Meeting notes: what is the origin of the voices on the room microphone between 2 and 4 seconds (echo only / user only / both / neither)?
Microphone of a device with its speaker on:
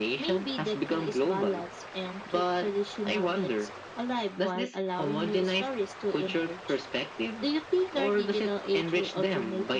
echo only